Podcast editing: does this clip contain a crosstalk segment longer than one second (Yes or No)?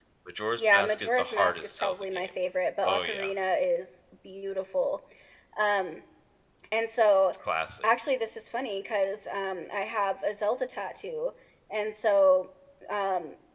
Yes